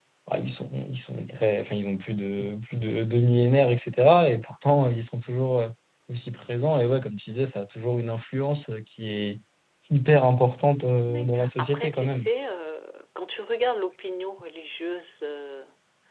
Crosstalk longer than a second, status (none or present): present